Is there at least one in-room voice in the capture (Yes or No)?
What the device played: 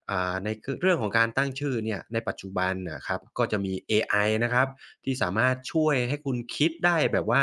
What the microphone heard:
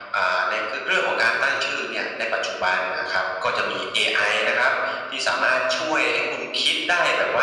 No